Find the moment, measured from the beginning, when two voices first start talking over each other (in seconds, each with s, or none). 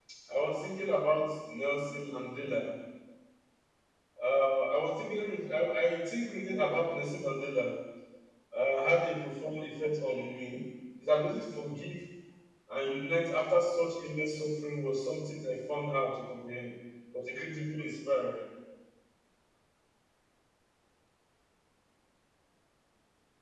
none